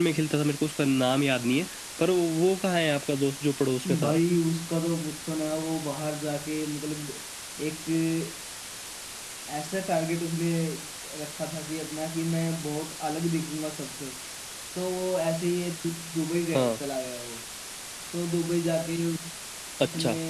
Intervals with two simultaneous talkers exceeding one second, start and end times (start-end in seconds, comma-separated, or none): none